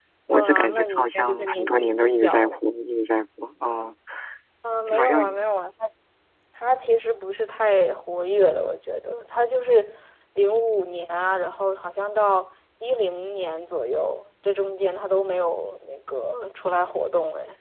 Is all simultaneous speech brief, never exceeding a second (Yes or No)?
No